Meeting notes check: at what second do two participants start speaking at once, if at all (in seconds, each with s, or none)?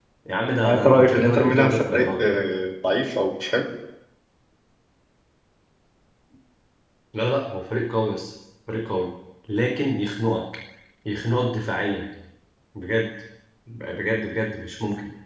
0.6 s